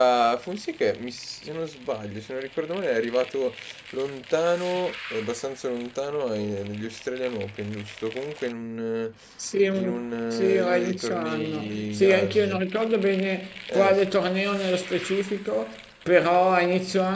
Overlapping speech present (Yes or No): Yes